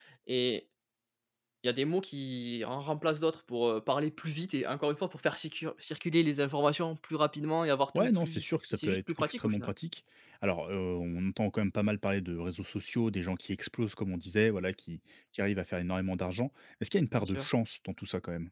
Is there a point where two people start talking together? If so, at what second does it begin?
7.9 s

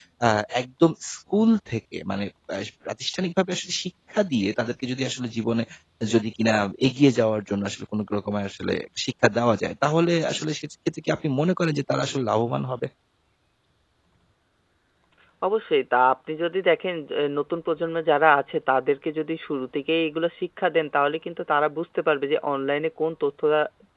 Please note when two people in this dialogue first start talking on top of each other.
none

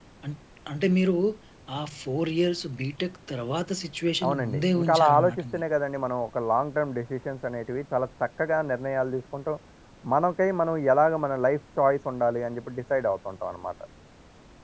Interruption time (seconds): 4.2 s

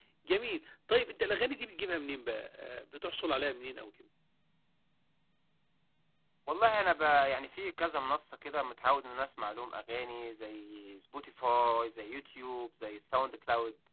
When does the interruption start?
none

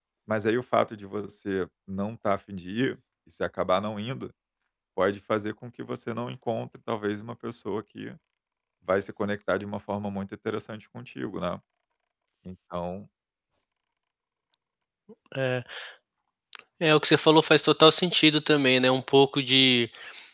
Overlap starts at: none

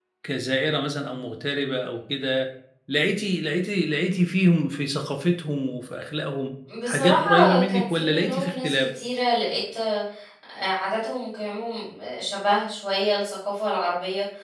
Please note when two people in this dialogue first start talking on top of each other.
6.9 s

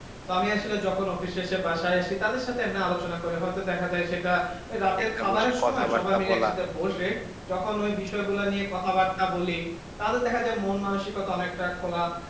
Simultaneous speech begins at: 5.2 s

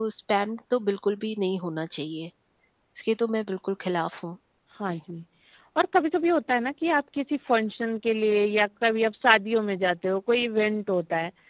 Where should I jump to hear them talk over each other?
none

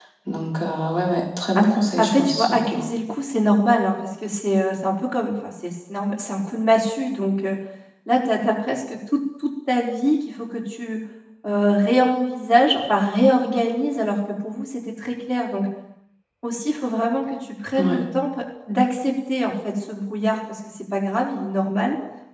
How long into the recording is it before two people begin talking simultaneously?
1.6 s

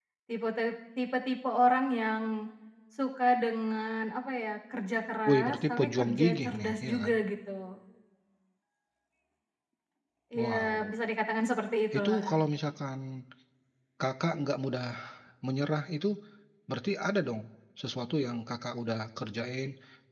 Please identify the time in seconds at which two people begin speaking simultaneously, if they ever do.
5.3 s

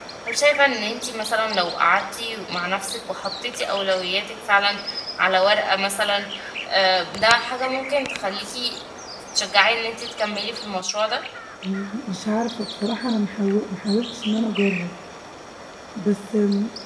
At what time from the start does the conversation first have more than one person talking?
none

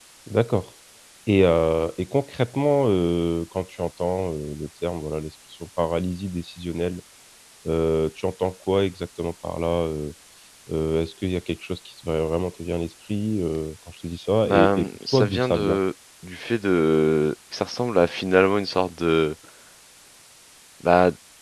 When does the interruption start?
14.4 s

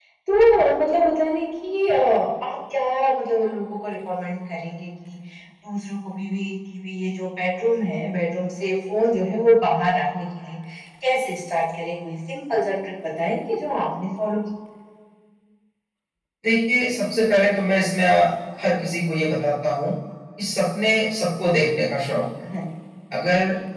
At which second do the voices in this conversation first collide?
none

